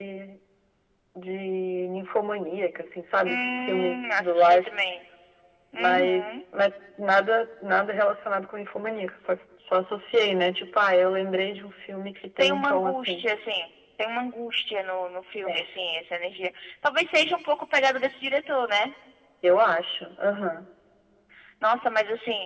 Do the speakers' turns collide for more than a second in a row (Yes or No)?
Yes